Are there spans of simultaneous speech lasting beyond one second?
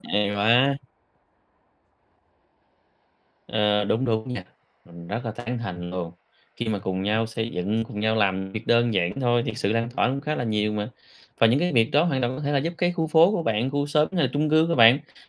No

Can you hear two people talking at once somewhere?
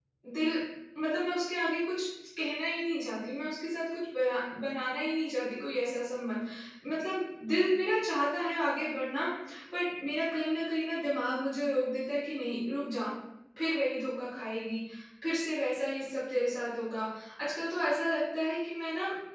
No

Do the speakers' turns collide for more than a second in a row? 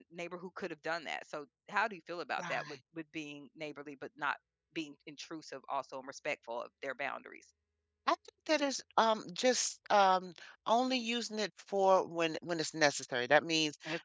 No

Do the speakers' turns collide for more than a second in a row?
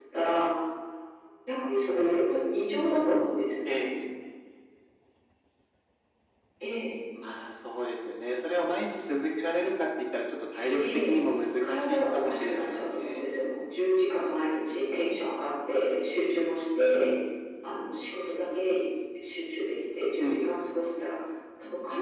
Yes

